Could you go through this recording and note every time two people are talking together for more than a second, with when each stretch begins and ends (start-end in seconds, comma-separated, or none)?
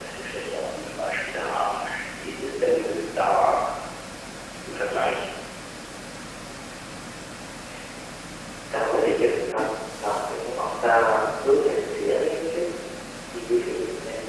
none